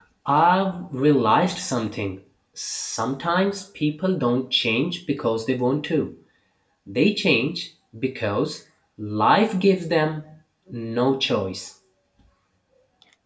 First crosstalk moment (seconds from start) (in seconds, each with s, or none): none